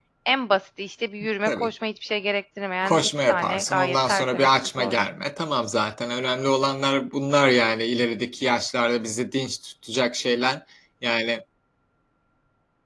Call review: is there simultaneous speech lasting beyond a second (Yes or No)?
Yes